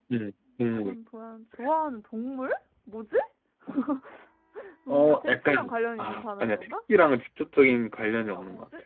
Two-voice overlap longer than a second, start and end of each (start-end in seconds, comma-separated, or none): 4.9-6.7